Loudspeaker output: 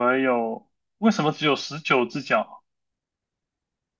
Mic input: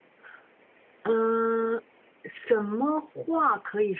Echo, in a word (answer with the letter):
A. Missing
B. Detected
A